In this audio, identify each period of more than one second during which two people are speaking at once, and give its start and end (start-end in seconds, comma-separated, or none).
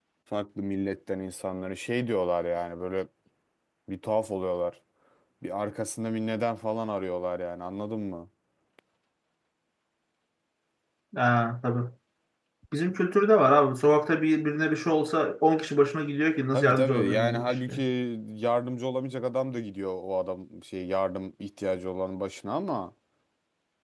16.5-17.8